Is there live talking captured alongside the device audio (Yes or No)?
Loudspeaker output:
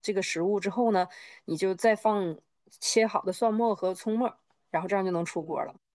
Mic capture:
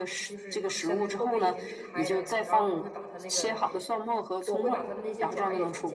Yes